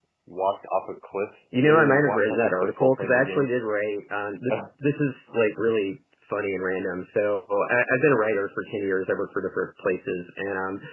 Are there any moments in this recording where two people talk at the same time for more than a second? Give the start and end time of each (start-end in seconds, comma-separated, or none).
1.6-3.5